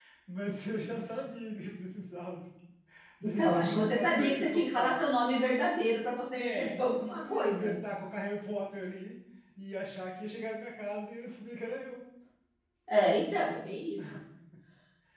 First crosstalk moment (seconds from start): 3.4 s

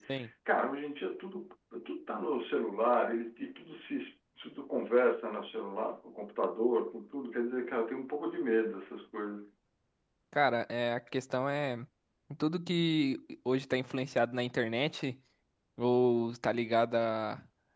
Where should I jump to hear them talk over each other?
none

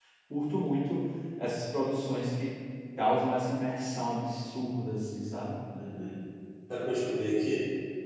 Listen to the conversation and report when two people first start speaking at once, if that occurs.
none

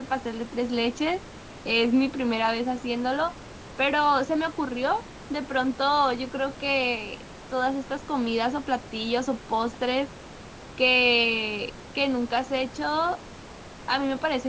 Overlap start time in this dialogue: none

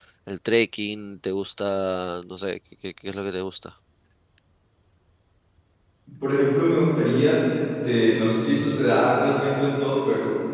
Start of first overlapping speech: none

